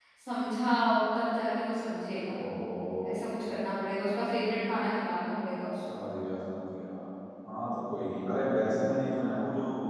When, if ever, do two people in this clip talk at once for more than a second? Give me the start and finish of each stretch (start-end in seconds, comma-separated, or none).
none